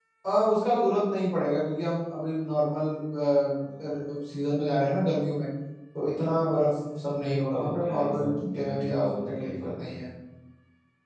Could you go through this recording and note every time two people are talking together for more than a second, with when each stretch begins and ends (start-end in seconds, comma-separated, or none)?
7.0-10.0